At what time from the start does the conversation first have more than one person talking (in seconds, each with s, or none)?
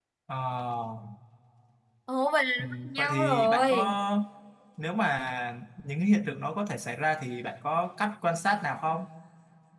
2.6 s